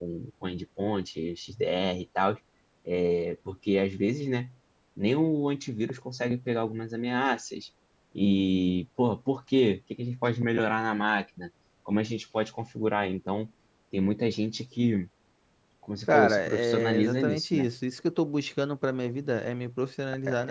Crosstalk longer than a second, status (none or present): present